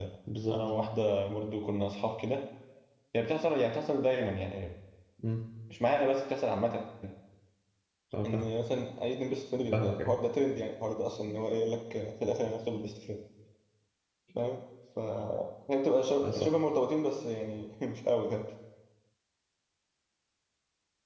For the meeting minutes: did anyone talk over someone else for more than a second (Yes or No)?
No